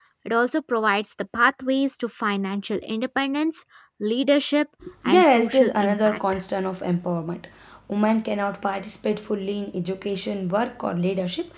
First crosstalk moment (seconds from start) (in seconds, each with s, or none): 4.8 s